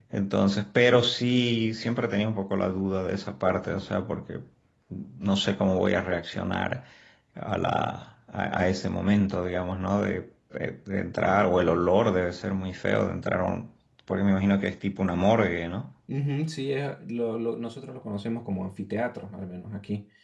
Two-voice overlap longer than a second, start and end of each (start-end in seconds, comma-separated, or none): none